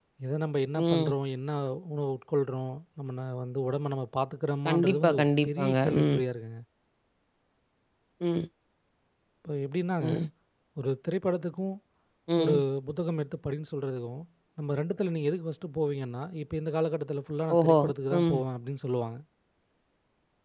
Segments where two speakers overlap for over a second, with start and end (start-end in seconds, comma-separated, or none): 4.7-6.2